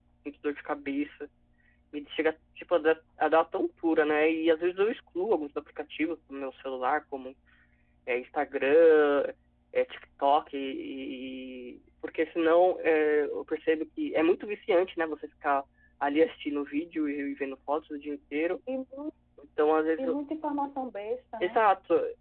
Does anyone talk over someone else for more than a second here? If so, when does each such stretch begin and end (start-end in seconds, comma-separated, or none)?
none